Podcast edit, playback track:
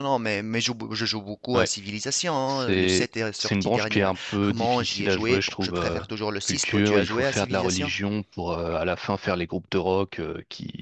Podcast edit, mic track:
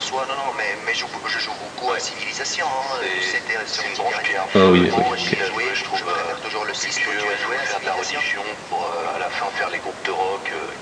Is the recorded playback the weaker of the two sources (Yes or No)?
Yes